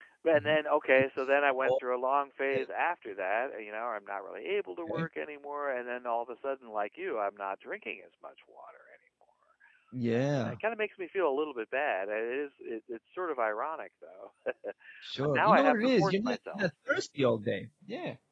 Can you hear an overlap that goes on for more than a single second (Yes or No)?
Yes